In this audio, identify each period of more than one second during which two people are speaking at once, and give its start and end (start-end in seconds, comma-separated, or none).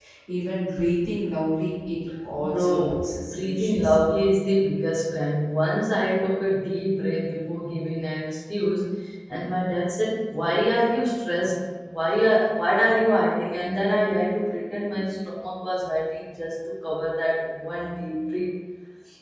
2.4-4.0